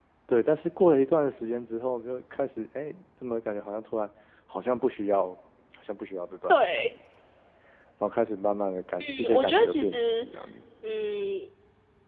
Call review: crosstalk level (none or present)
present